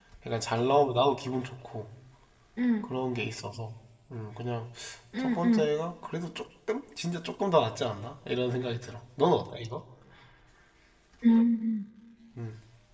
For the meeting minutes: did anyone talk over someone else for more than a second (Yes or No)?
No